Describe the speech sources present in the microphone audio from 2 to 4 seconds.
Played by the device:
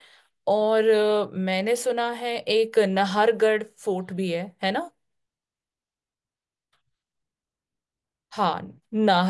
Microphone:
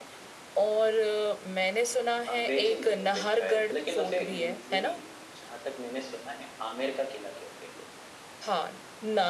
both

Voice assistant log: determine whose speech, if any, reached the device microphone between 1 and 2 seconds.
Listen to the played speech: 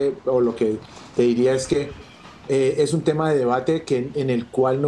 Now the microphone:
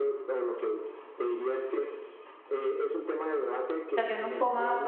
echo only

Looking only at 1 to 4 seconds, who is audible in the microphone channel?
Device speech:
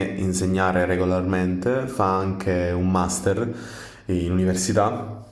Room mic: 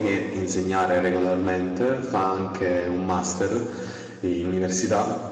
echo only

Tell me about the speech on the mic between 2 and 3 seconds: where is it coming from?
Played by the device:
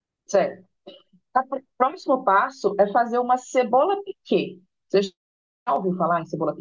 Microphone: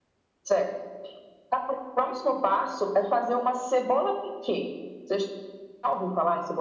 echo only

